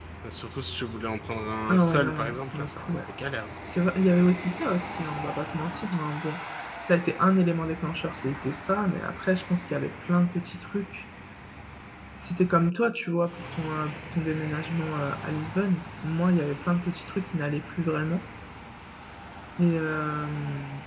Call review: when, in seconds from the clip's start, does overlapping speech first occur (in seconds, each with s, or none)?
1.7 s